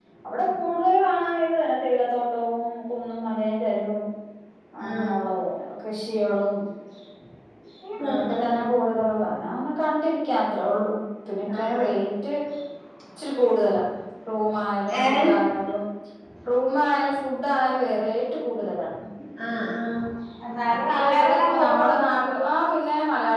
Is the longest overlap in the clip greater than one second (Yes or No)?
Yes